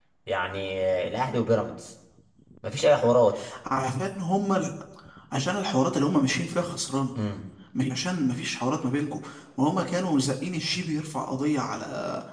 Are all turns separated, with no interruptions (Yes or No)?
Yes